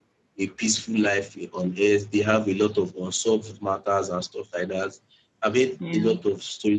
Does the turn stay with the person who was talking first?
Yes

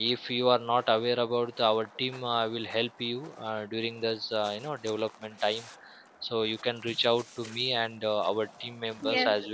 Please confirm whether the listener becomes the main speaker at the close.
No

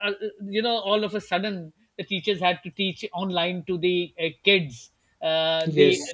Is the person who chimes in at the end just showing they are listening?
Yes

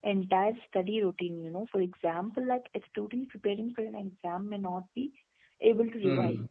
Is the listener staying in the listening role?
Yes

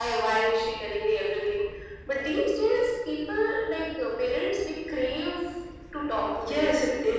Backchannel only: No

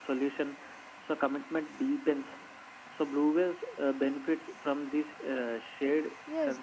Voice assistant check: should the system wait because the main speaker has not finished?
No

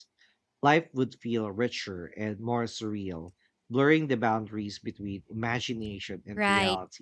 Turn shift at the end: Yes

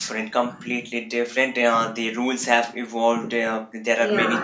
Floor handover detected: No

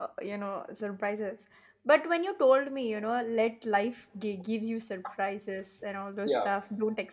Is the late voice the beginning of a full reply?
No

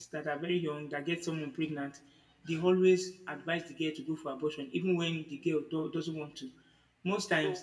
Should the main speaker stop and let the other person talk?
Yes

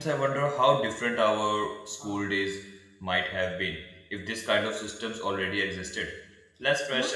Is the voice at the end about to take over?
No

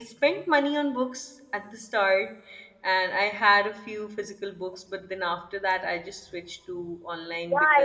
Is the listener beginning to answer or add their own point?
Yes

